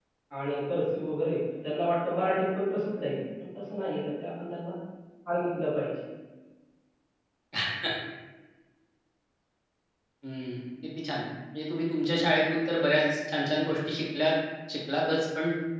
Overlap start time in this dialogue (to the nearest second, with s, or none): none